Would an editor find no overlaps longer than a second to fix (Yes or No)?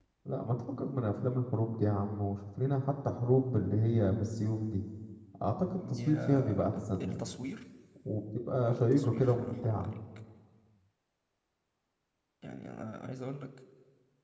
No